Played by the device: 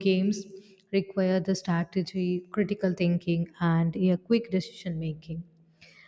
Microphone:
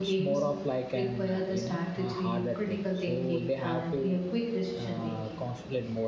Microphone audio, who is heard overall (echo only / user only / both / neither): both